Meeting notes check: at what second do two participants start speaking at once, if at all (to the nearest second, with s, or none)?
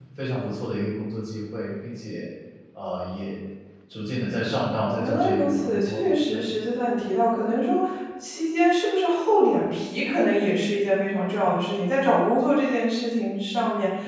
5 s